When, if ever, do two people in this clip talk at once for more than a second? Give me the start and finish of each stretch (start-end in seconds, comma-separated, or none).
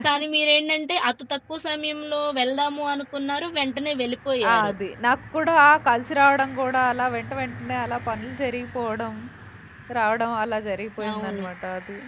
none